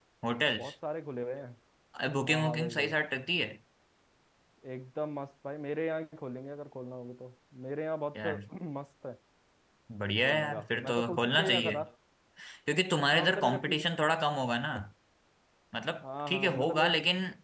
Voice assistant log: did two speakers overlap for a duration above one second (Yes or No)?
Yes